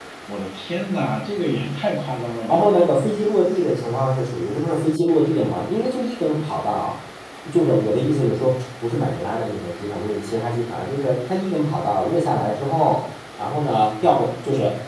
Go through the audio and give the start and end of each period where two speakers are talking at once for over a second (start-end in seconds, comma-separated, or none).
none